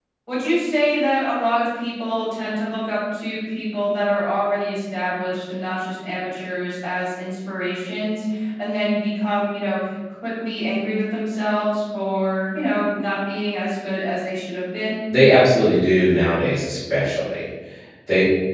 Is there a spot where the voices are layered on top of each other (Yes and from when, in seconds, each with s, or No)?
No